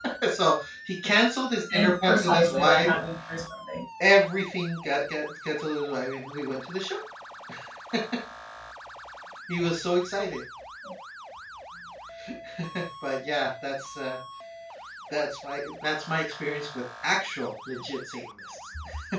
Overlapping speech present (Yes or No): Yes